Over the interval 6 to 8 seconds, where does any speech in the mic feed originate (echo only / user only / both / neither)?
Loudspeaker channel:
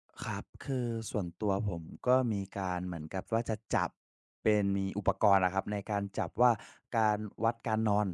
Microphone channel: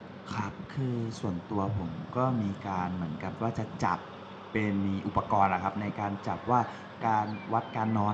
echo only